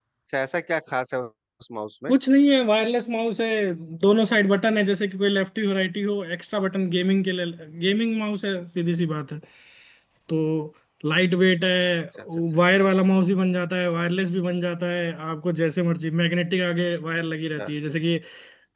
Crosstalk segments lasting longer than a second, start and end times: none

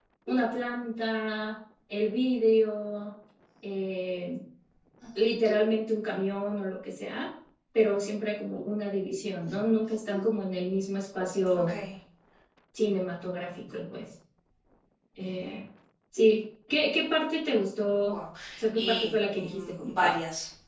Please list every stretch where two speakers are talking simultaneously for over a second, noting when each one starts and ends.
18.8-20.2

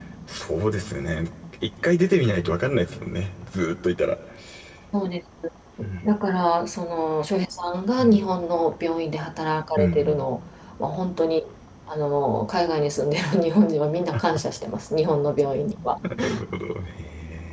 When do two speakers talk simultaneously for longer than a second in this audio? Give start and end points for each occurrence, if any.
none

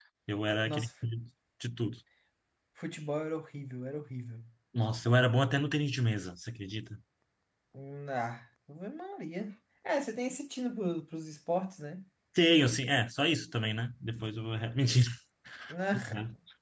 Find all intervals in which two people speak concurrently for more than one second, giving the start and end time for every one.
none

